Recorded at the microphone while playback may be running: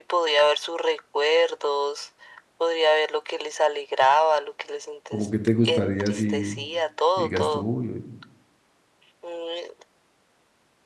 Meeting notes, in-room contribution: present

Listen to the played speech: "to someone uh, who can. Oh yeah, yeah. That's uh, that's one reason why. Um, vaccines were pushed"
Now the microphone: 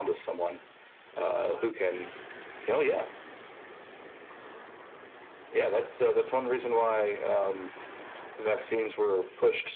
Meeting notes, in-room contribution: none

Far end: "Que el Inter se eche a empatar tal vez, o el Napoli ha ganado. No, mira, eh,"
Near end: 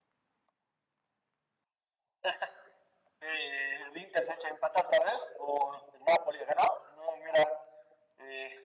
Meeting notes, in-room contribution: none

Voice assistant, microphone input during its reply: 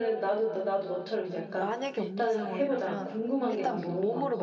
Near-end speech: present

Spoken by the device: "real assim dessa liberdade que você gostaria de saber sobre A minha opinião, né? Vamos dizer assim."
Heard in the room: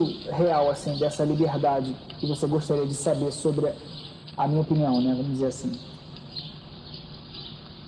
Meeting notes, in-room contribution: none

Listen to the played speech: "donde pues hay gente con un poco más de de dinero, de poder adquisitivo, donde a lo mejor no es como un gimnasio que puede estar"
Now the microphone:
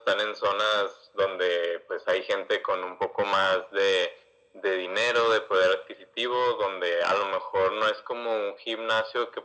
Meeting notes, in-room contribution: none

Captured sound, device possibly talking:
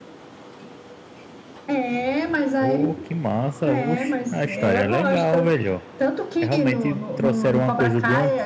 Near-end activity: present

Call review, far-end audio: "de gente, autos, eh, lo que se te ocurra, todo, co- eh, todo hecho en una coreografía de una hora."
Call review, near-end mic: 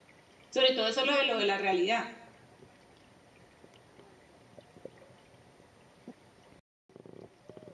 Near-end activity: present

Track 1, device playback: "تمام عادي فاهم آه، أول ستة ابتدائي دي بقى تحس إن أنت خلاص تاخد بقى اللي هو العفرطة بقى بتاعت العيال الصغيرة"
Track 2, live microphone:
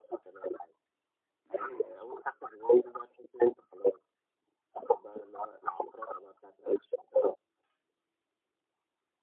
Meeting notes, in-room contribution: present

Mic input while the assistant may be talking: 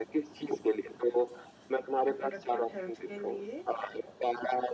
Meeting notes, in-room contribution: present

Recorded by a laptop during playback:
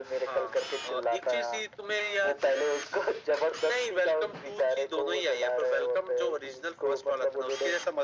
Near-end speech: none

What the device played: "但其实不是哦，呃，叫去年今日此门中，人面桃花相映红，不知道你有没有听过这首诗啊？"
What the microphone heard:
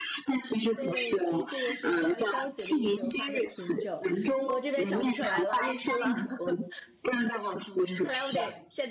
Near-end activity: present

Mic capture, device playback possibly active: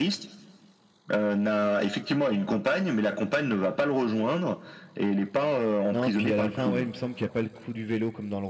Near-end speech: present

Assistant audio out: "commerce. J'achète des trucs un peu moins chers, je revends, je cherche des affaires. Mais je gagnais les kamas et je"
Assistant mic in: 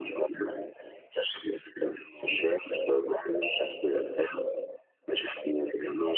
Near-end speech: none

